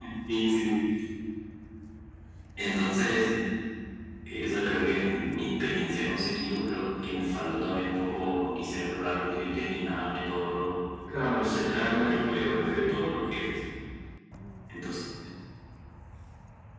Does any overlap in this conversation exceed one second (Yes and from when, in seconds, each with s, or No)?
Yes, from 11.4 s